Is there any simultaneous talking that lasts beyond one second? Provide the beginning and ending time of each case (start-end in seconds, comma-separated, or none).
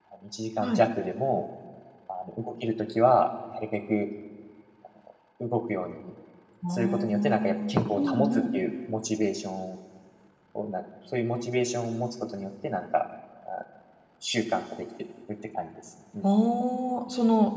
6.7-8.4